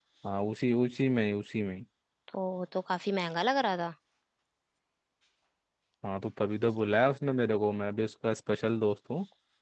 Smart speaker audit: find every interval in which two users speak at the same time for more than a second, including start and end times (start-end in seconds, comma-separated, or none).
none